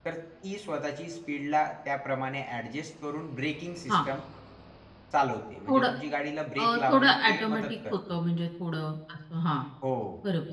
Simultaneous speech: Yes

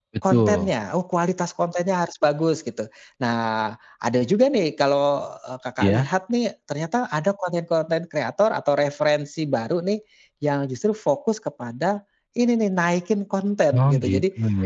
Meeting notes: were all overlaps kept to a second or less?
Yes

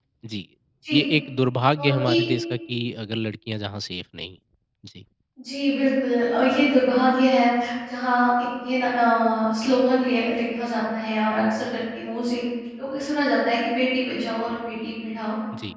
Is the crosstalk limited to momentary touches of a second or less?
Yes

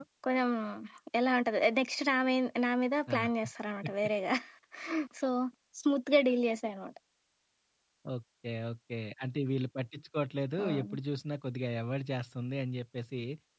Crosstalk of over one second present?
No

